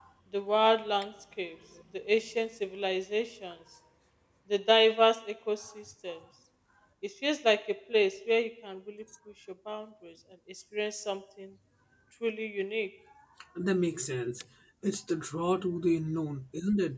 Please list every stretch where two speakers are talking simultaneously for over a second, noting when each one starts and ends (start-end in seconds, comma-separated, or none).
none